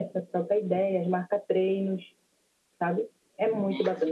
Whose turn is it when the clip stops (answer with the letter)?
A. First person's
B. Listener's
B